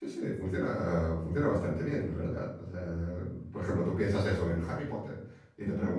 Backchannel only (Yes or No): Yes